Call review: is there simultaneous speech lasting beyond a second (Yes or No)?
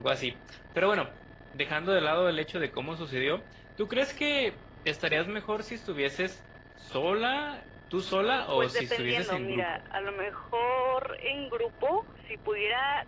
Yes